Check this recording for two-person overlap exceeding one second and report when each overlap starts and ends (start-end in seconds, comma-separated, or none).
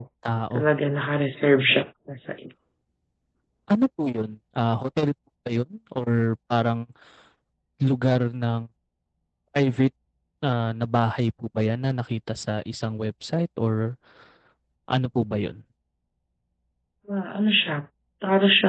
none